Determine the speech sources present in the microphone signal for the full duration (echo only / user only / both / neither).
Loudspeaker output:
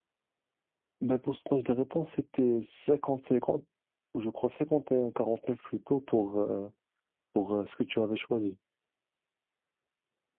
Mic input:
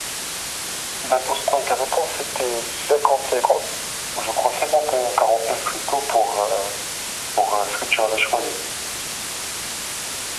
echo only